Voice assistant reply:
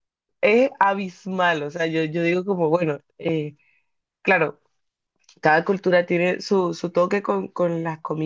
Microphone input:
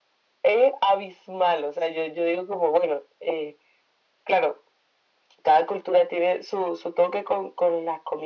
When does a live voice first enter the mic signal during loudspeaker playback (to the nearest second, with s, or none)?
none